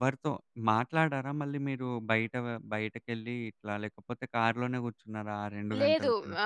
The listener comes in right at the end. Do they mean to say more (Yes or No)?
Yes